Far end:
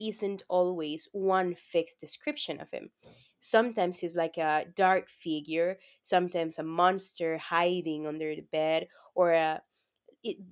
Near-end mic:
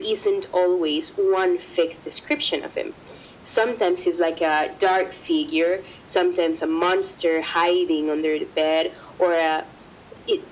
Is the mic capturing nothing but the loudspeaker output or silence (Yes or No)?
Yes